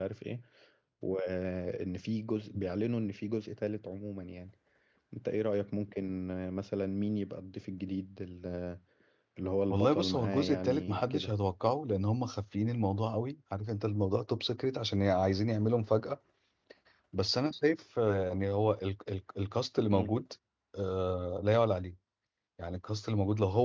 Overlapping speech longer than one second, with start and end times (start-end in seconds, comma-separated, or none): 9.7-11.3